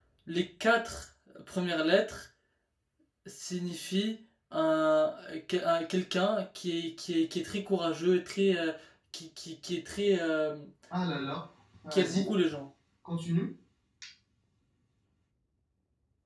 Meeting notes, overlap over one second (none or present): none